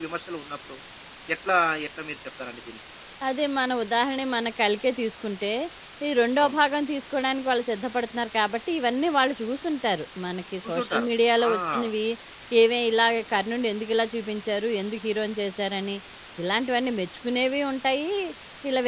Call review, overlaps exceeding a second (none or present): none